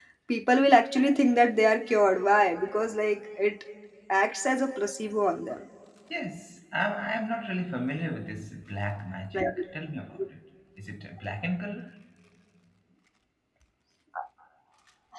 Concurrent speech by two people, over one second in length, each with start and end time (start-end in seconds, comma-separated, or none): none